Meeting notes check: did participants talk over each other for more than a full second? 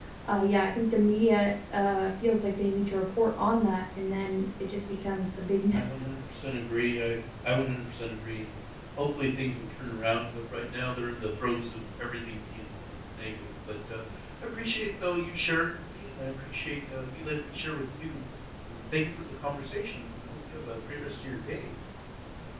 No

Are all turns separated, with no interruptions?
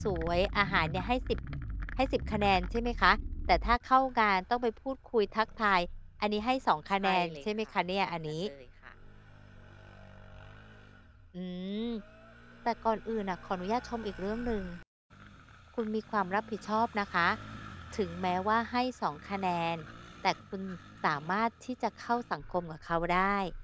No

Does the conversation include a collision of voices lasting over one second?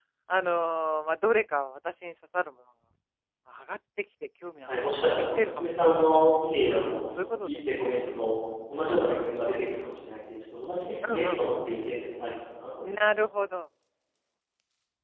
Yes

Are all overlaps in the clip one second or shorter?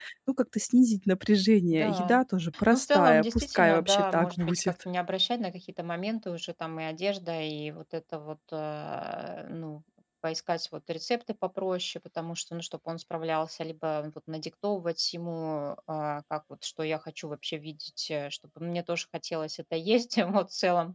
No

